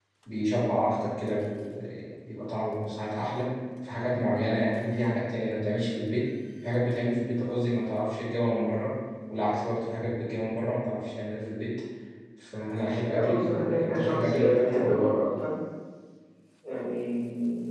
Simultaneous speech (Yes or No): Yes